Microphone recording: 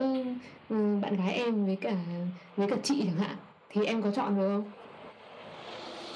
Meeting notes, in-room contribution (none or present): none